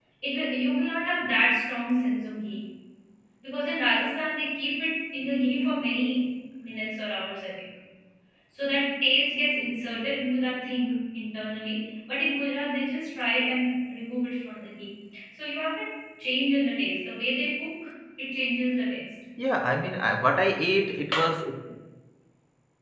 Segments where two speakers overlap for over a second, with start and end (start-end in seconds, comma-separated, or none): none